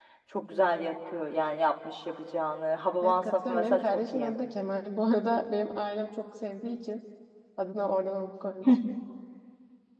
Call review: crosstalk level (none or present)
present